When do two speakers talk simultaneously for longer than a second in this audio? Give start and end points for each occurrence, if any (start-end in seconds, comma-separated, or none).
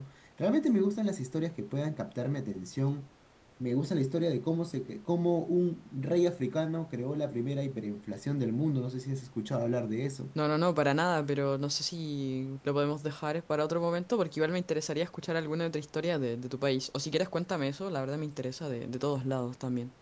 none